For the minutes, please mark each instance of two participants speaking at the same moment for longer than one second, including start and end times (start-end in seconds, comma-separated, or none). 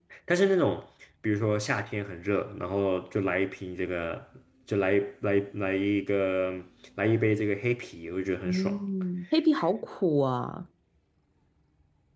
none